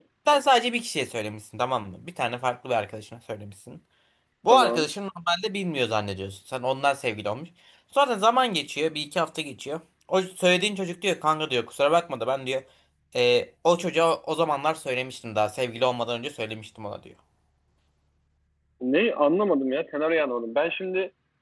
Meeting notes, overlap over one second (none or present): none